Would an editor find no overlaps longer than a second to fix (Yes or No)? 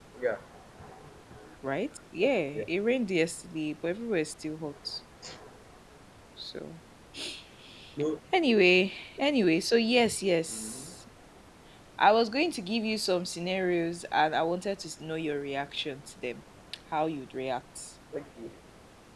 Yes